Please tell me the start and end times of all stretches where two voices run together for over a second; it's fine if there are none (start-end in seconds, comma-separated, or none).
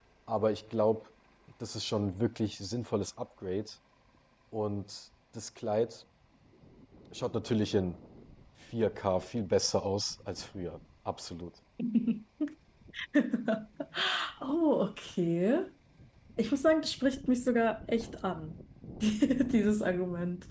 none